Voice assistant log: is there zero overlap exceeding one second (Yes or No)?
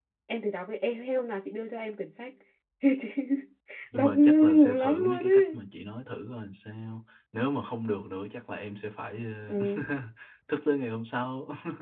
No